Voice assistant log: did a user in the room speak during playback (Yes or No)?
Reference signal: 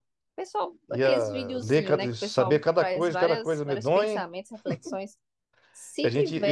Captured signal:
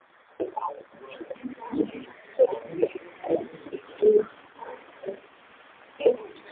No